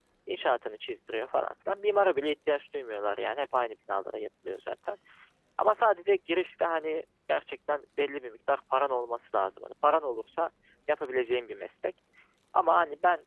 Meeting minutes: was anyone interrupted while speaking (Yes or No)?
No